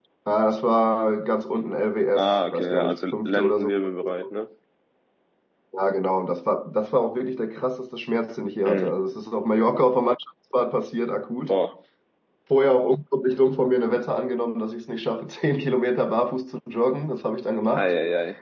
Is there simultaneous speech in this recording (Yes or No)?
Yes